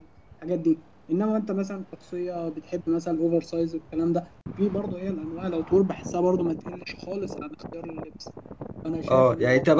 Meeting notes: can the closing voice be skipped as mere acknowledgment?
No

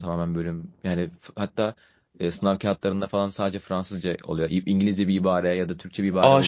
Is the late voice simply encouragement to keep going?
No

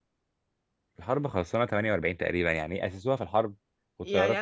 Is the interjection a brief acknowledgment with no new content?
No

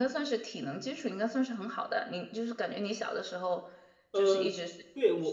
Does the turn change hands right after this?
Yes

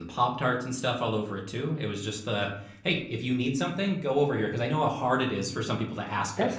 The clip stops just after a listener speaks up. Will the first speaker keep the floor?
No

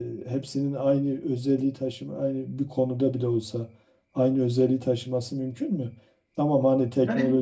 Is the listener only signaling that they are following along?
No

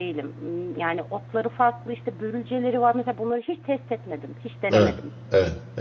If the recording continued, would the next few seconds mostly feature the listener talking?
Yes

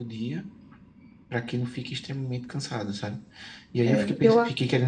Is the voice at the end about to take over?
No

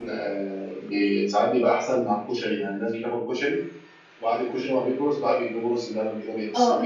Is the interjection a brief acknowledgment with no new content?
No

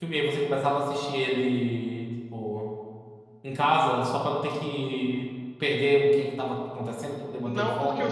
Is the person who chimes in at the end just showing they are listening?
No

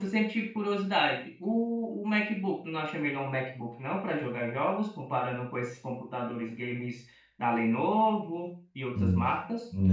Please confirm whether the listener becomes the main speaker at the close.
Yes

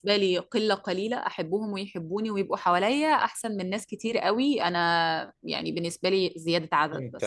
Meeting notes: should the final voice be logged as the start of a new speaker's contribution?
Yes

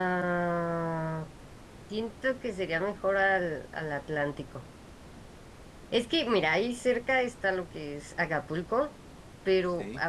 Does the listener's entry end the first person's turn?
No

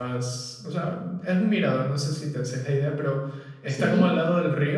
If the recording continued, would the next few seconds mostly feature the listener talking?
No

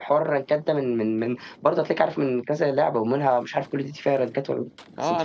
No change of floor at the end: No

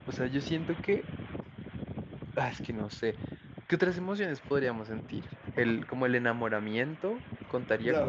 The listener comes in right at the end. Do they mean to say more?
Yes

